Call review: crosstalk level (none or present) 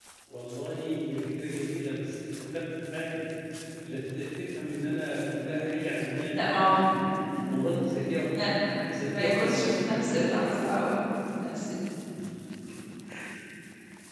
present